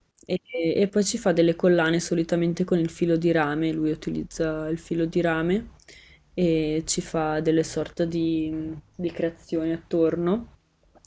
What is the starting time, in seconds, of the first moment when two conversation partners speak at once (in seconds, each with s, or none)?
none